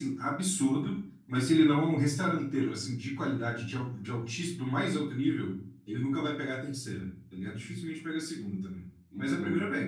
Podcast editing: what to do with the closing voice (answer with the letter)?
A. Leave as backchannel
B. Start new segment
B